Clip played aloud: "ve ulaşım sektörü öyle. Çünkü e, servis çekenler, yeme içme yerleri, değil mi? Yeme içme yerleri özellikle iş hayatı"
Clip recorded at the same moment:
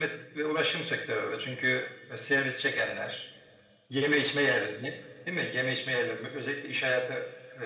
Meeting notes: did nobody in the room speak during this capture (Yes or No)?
Yes